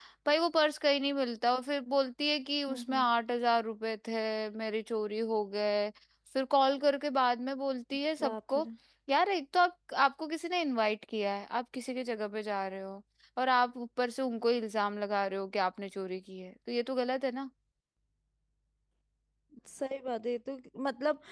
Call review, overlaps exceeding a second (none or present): none